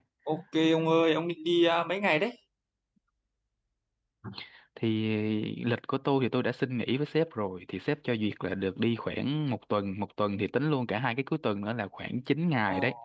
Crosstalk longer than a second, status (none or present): none